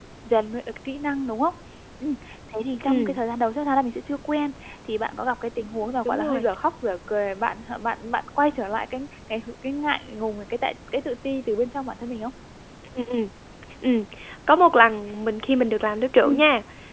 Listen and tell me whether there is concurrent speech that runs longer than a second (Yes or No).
No